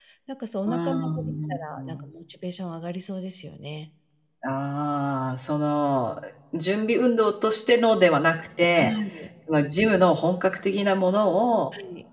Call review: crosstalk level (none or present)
present